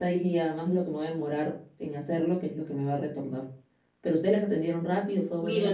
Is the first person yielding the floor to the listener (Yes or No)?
Yes